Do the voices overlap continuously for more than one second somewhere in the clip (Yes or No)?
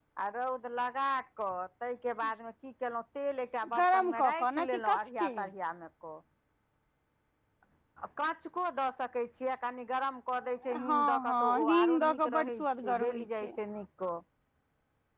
Yes